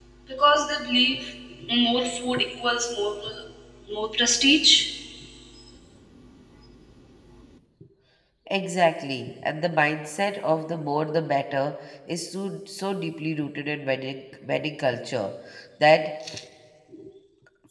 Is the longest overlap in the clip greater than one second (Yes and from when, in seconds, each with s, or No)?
No